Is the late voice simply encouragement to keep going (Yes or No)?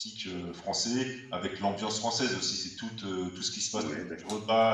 Yes